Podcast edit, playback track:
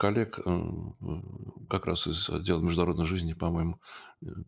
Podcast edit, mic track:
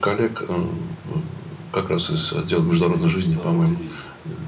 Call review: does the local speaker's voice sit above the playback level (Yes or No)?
No